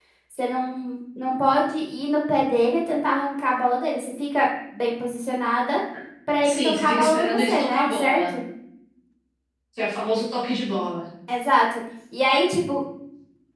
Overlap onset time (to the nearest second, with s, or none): 6 s